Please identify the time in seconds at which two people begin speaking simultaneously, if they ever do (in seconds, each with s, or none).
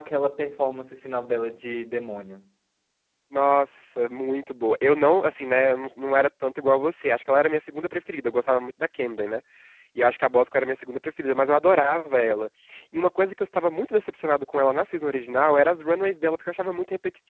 none